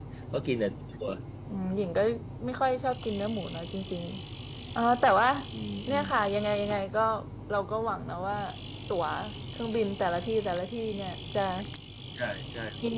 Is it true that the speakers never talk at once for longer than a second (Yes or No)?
Yes